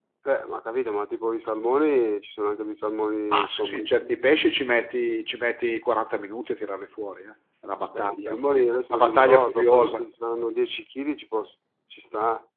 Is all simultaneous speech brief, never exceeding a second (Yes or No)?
No